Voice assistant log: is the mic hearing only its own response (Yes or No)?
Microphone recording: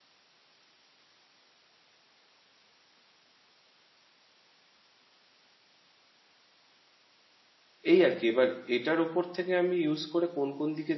No